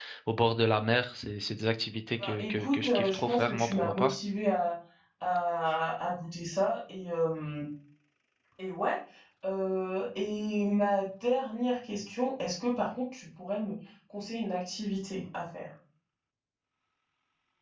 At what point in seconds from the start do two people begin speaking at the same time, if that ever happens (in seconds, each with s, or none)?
2.2 s